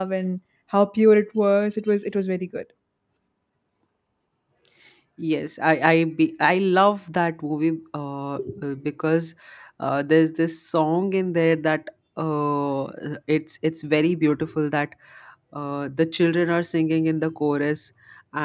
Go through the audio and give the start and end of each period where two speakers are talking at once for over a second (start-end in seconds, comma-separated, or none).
none